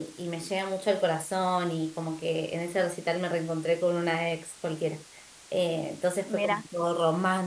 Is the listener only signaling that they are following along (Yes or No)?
Yes